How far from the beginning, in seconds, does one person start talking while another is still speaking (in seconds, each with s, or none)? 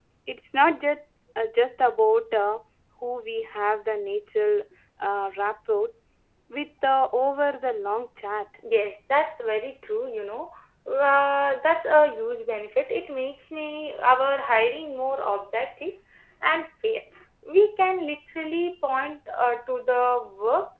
none